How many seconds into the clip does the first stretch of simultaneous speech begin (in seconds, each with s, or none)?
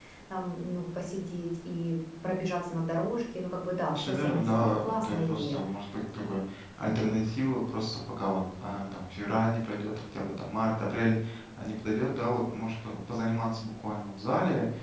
3.9 s